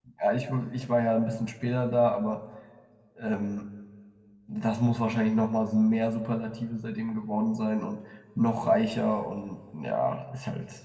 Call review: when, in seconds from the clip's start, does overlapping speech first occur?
none

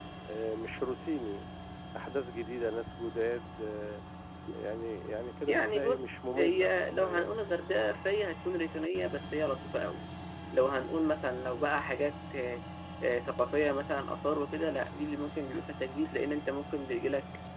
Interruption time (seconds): 5 s

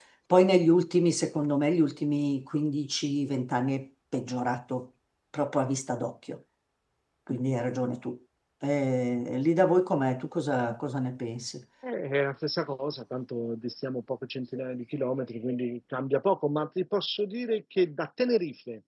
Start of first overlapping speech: none

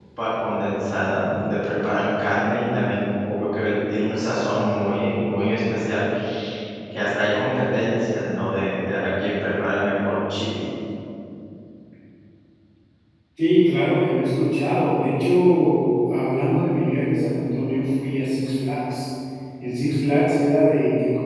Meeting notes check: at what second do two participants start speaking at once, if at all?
none

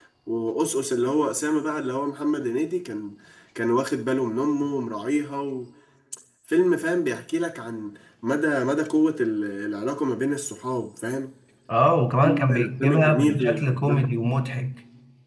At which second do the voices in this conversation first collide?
12 s

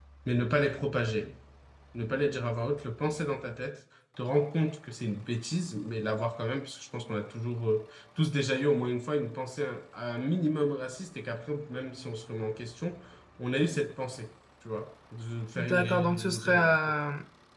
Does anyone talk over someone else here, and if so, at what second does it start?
16 s

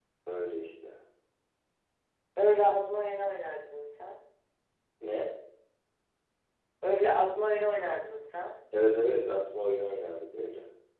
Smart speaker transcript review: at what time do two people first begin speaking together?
none

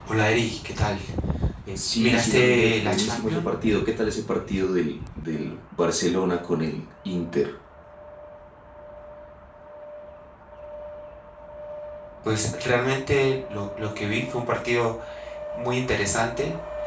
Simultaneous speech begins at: 2 s

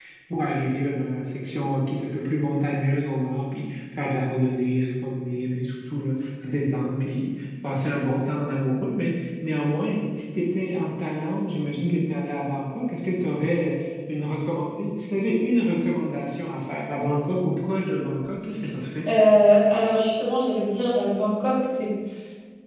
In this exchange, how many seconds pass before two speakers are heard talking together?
none

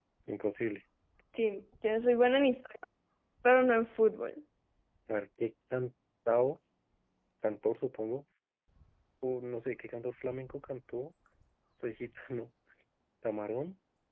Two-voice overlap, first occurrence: none

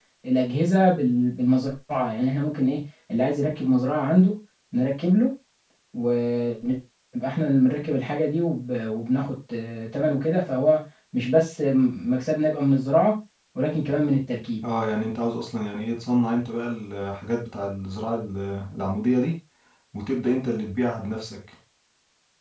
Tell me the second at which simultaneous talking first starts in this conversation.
none

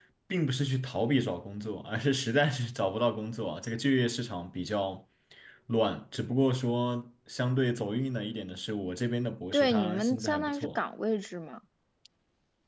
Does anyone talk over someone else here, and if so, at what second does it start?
10 s

